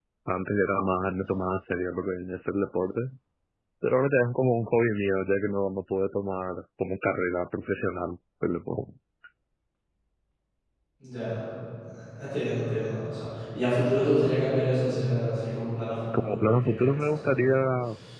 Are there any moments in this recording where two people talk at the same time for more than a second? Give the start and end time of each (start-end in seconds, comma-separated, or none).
16.2-17.7